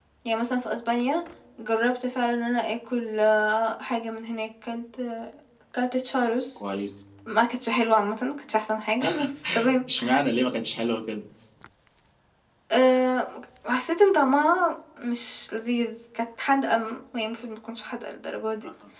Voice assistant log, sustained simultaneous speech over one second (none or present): none